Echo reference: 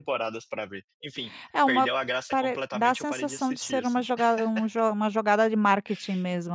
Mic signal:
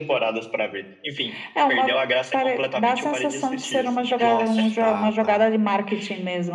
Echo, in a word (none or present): present